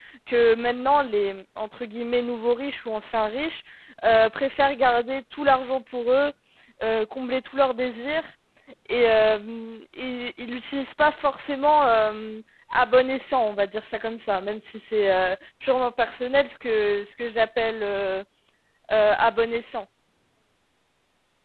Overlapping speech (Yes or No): No